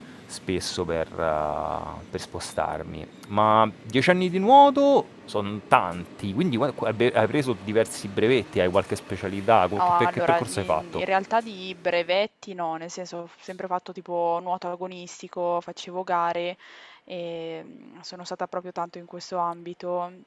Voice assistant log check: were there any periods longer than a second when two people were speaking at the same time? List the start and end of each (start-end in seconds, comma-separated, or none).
9.8-11.0